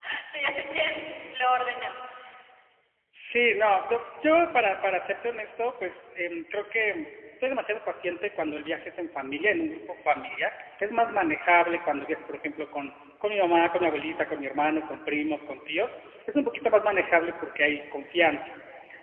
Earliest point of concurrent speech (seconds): none

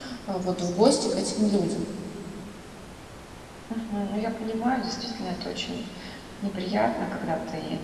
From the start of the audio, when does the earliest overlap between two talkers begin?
none

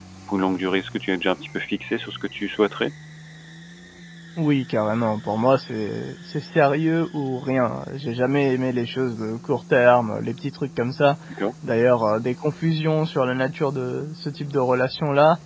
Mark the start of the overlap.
none

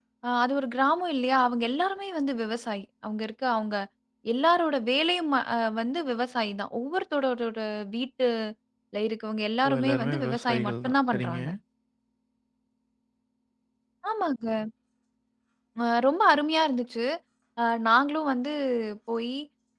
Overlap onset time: 9.6 s

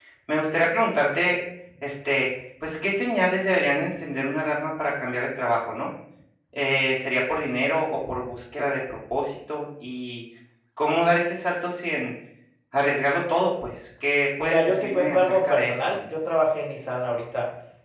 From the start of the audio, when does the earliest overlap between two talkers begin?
14.4 s

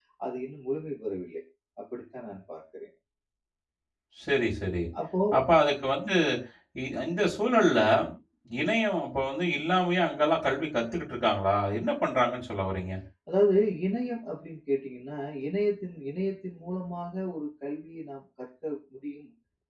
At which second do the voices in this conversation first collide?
none

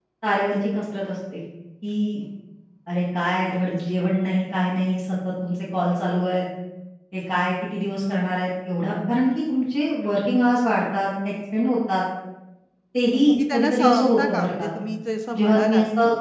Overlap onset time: 13.3 s

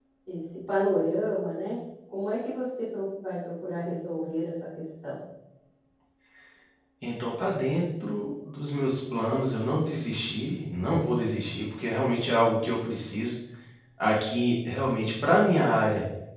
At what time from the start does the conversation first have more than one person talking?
none

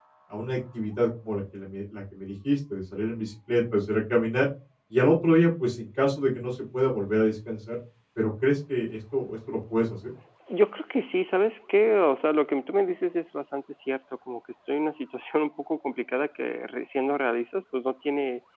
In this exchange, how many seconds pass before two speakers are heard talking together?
none

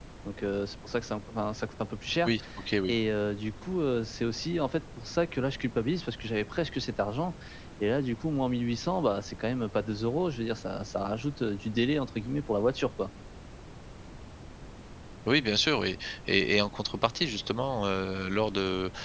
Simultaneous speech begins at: none

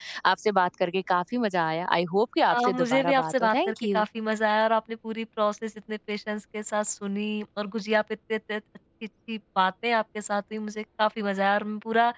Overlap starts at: 2.5 s

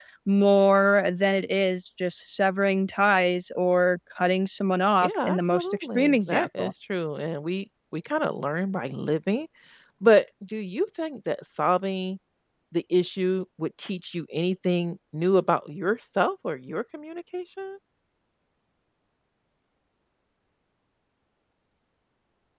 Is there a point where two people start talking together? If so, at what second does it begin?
5.0 s

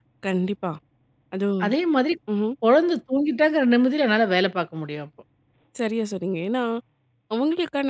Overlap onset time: none

